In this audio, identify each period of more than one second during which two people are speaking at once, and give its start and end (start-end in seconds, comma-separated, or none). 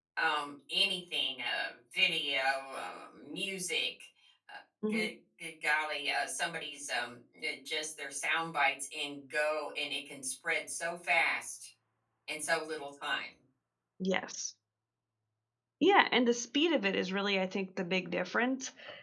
none